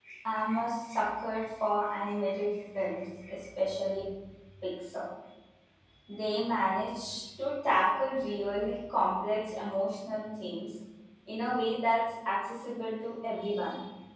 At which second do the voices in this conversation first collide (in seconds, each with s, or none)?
none